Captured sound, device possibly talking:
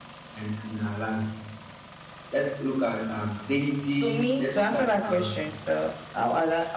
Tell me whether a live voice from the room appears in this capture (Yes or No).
Yes